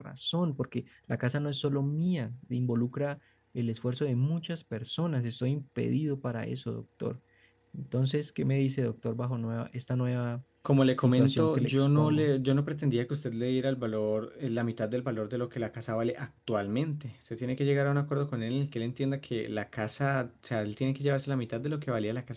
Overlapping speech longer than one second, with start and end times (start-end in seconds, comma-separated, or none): 11.0-12.3